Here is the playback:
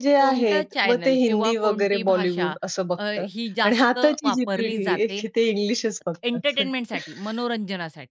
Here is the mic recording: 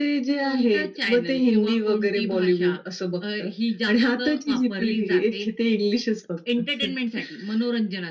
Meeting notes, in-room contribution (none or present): none